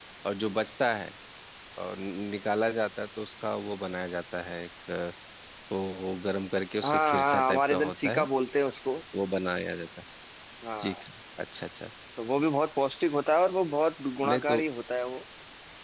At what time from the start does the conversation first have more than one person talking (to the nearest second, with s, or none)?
7 s